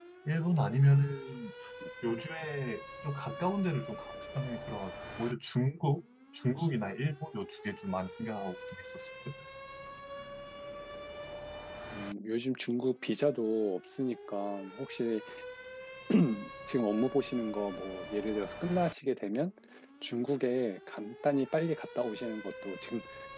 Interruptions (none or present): none